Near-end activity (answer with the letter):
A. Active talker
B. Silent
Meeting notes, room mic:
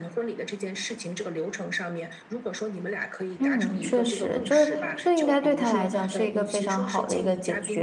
A